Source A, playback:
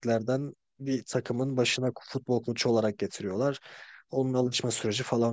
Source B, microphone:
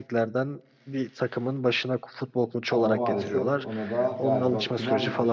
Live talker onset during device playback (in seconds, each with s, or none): 2.7 s